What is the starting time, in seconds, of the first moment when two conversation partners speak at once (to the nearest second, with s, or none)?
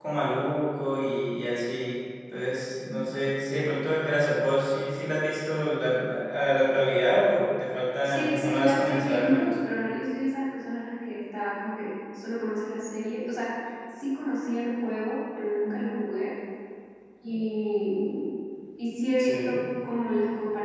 8 s